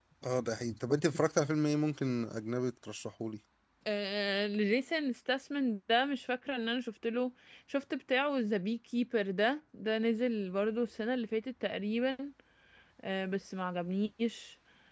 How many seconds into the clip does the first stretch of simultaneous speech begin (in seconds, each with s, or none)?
none